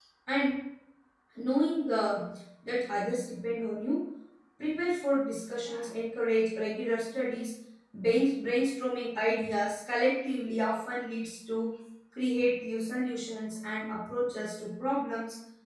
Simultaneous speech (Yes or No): No